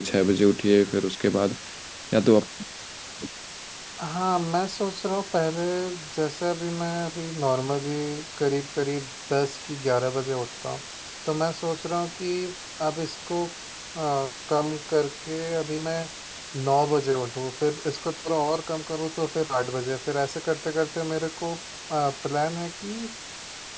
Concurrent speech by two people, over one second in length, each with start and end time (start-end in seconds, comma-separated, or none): none